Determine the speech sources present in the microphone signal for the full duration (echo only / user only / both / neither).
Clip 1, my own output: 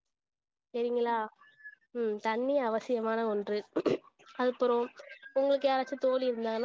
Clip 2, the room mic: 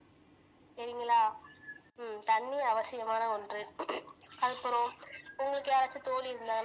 echo only